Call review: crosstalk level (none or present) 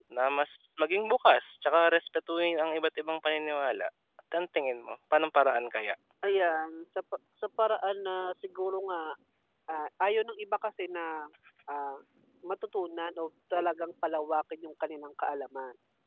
none